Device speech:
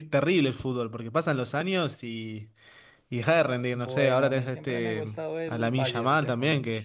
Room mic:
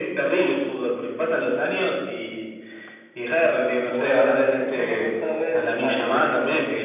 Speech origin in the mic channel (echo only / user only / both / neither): echo only